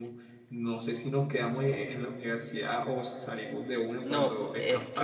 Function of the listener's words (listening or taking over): taking over